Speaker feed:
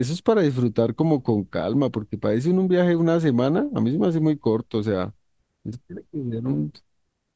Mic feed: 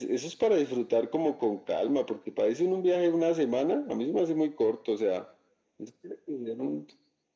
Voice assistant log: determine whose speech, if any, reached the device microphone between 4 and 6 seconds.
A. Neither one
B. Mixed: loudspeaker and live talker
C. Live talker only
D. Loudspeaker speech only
D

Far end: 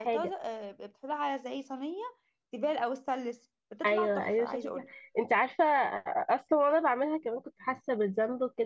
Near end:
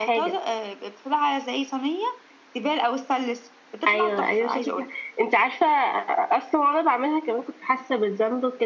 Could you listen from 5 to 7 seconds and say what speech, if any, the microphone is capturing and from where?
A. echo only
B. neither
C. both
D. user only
A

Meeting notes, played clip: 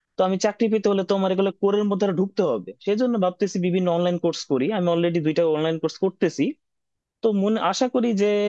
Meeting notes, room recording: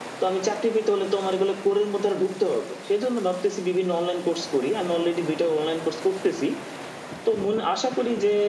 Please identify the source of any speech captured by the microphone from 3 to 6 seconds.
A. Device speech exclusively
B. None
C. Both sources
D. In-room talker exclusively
A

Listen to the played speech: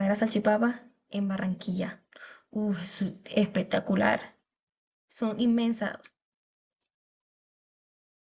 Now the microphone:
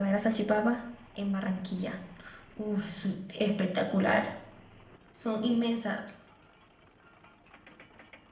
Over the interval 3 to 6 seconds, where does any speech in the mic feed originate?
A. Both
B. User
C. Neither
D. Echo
D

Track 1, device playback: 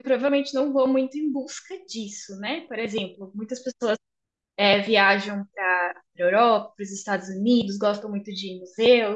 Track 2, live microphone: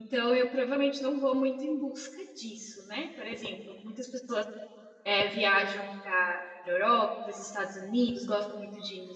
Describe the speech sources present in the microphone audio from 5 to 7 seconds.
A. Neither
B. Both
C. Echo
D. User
C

